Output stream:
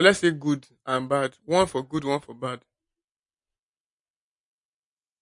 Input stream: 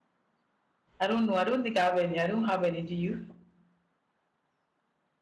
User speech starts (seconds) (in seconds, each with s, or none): 1.0 s